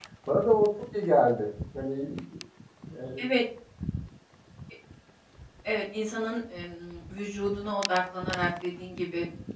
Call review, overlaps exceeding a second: none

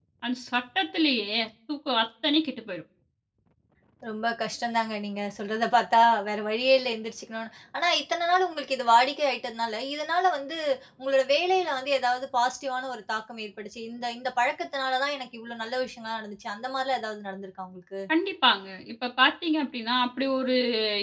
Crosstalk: none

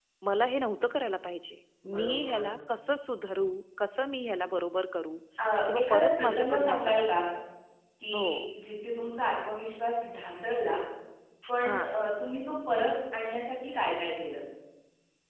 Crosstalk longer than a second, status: present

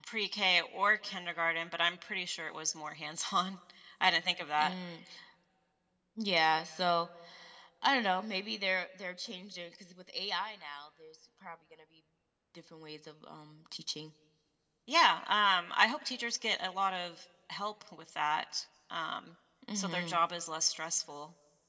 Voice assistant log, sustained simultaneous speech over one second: none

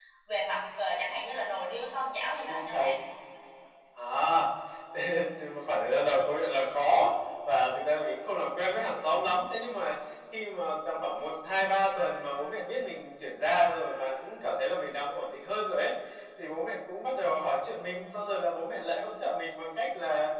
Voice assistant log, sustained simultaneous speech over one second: none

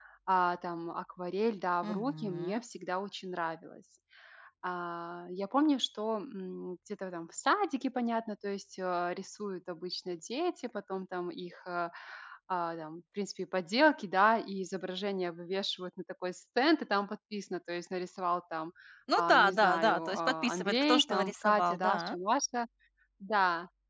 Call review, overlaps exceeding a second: present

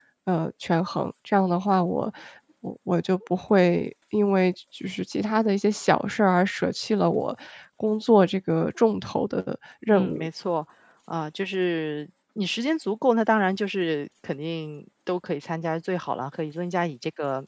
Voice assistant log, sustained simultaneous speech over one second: none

